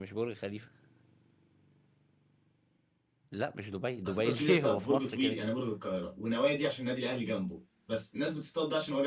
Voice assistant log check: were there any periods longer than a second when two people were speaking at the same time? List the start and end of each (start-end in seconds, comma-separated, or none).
4.0-5.5